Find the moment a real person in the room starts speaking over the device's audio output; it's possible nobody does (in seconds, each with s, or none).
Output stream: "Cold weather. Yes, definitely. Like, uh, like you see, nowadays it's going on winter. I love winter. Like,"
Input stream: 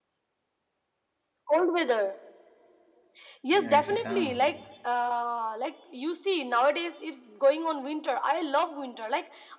3.5 s